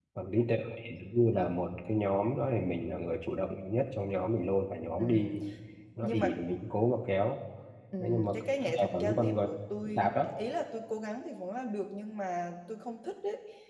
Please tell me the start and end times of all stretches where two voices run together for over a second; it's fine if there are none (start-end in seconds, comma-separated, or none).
8.0-9.4